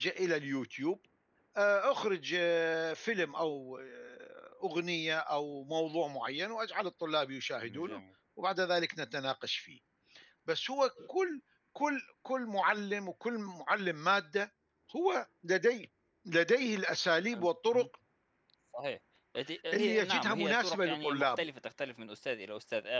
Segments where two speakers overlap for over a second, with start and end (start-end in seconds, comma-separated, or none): 19.7-21.5